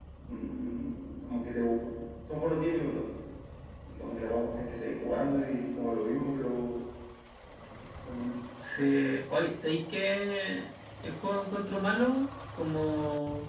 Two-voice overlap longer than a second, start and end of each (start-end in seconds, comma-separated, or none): none